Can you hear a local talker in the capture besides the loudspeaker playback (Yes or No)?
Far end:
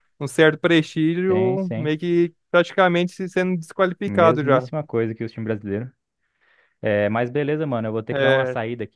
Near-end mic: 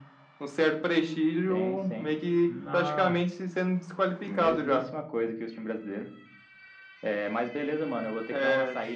Yes